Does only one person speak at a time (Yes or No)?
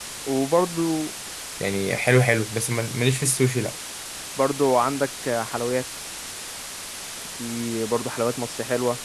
Yes